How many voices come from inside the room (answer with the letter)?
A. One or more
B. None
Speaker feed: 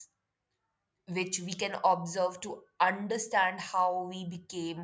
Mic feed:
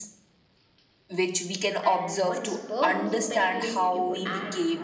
A